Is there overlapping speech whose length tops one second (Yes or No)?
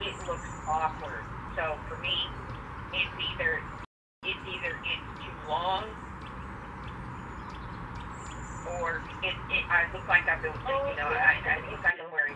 Yes